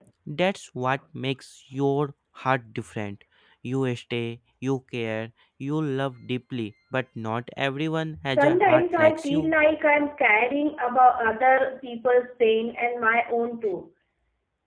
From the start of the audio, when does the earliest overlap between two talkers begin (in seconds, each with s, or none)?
8.3 s